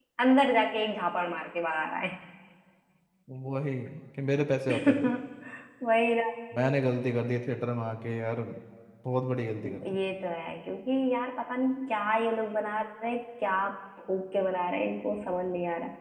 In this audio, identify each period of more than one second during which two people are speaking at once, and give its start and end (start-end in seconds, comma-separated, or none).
none